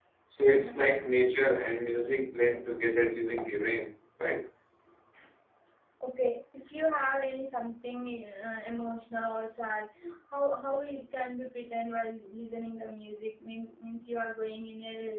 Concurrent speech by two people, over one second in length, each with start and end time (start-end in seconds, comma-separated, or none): none